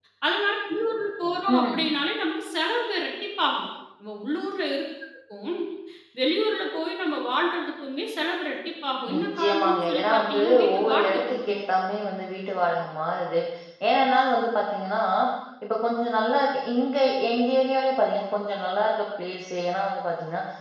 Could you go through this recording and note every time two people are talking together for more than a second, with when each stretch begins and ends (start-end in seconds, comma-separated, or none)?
9.1-11.6